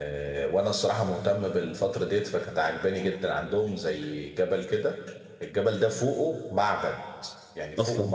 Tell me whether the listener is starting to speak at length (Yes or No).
No